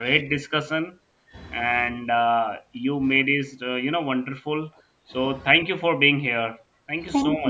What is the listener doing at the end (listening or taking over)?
taking over